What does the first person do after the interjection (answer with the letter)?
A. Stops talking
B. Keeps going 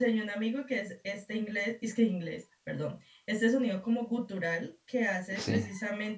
B